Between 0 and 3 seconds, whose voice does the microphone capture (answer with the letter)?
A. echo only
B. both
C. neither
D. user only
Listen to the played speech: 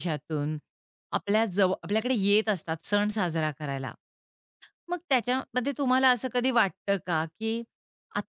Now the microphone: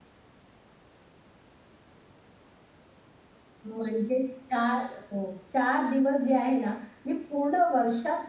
C